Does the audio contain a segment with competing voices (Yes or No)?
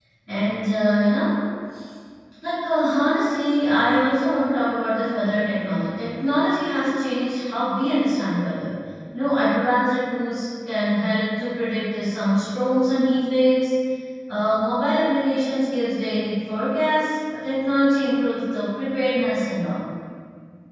No